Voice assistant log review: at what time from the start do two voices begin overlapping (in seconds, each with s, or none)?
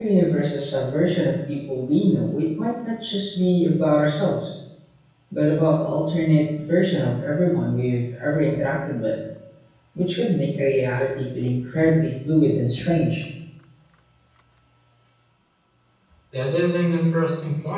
none